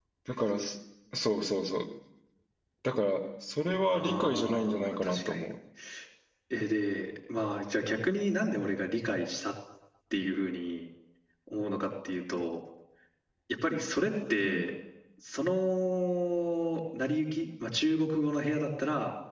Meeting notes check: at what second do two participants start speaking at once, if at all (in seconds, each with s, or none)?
3.9 s